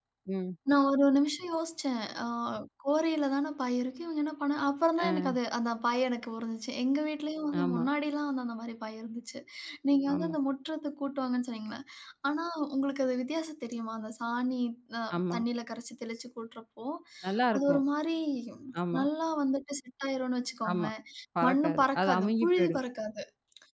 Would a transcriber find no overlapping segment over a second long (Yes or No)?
No